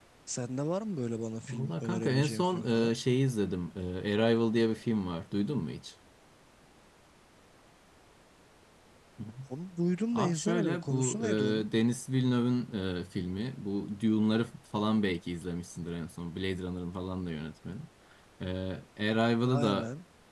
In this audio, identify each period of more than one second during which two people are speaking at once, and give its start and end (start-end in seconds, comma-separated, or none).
1.5-2.9, 10.1-11.7